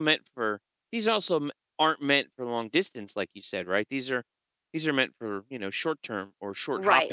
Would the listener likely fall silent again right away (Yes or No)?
No